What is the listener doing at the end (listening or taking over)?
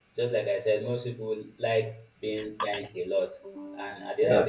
listening